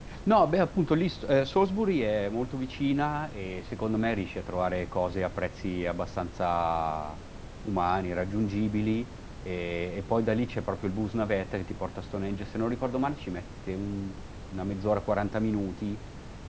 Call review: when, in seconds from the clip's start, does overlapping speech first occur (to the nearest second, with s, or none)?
none